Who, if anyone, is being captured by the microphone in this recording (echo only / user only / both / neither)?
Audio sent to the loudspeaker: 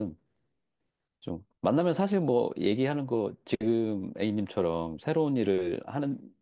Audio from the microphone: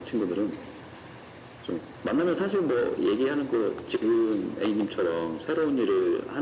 echo only